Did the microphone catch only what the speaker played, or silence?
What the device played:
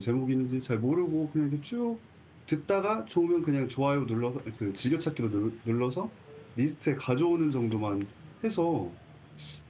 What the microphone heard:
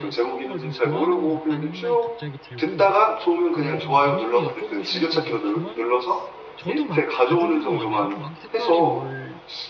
No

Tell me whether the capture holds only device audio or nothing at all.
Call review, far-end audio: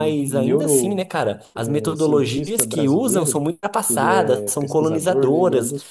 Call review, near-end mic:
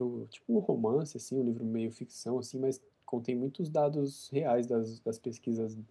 No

